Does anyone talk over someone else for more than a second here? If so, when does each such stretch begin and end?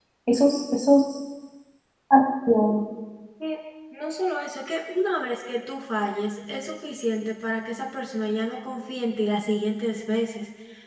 none

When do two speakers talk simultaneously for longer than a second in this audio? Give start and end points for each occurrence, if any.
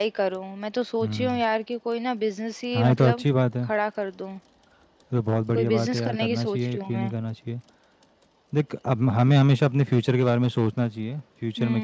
5.5-7.1

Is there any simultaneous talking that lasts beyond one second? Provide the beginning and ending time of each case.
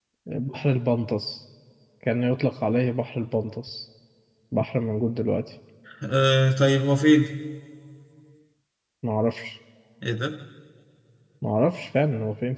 none

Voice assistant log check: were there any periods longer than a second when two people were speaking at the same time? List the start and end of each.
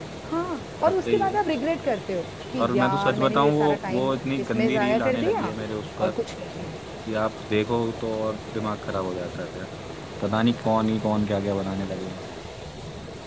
2.6-5.5

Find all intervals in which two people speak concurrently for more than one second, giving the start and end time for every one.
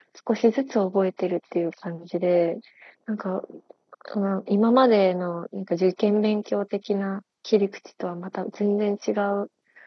none

